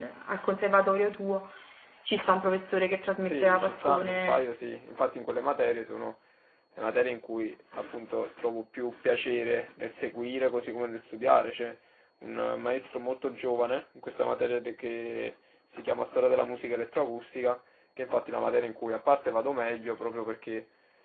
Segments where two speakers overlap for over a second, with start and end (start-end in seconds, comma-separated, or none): 3.2-4.5